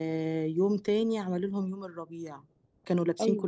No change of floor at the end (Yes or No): Yes